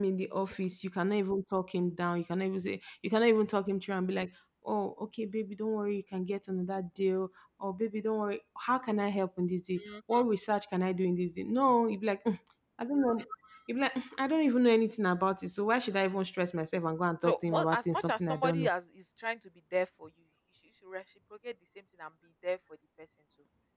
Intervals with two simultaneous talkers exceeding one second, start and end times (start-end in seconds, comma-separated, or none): 17.2-18.7